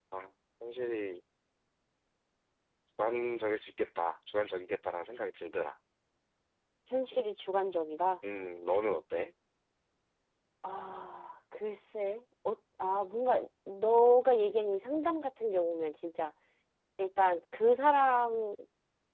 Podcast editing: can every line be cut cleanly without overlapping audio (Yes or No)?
Yes